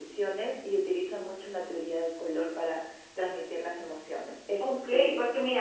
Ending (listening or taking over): taking over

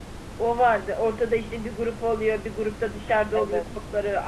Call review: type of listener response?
listening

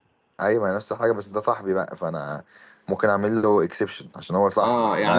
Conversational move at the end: taking over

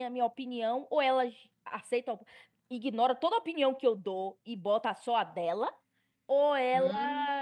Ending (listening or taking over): listening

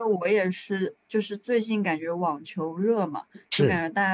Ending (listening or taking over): listening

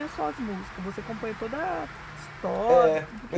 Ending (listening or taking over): taking over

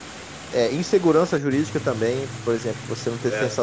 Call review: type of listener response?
listening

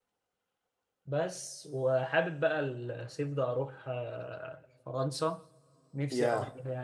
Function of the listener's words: listening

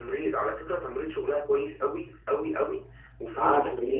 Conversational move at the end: listening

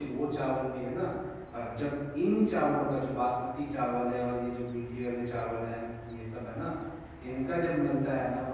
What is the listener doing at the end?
listening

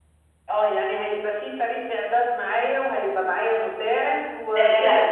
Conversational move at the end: taking over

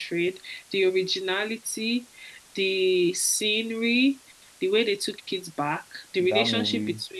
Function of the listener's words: listening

